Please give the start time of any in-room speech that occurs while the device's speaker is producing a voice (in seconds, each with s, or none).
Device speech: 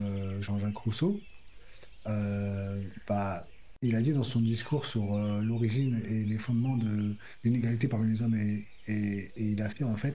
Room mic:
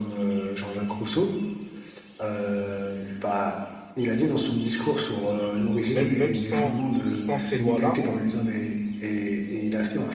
5.4 s